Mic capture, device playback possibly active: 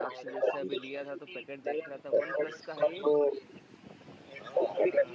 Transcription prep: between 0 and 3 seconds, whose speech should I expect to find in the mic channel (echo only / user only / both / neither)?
both